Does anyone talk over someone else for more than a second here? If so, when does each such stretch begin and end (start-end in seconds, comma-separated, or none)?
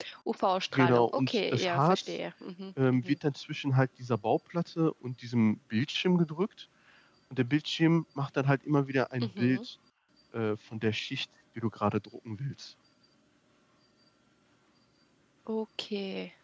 0.7-2.0